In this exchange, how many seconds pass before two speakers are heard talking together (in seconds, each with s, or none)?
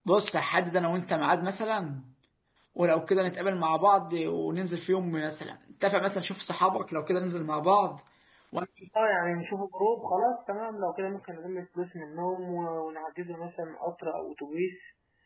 none